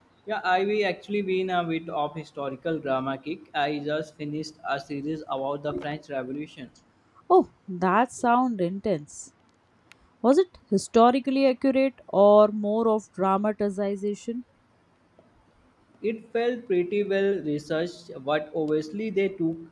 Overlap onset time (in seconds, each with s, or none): none